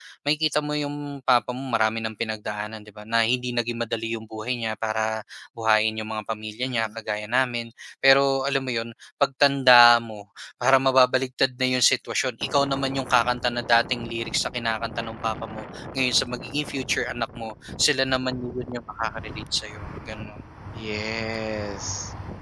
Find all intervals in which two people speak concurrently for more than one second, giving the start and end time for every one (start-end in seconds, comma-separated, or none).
none